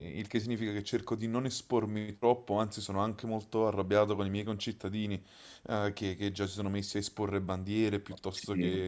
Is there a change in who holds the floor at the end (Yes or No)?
No